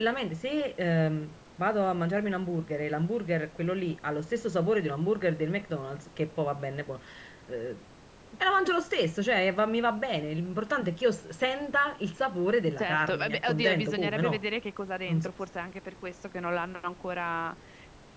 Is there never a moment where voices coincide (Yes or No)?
No